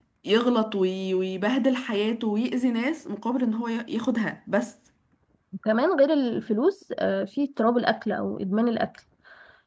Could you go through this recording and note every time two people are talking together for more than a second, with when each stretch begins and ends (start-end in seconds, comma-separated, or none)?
none